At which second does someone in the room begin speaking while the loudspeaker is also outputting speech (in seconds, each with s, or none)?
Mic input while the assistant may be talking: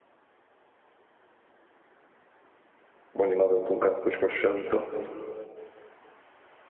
3.2 s